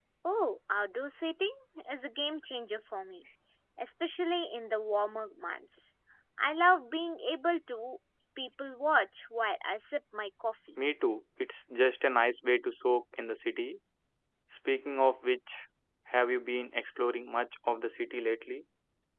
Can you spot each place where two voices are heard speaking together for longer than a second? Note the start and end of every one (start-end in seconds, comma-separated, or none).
none